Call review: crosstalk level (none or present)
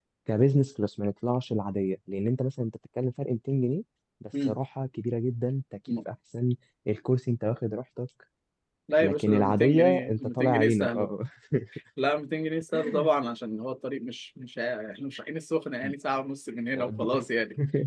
present